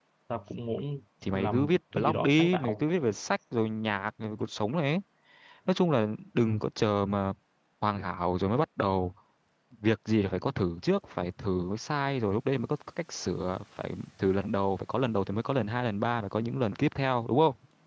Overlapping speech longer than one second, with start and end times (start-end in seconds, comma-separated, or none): 1.3-2.8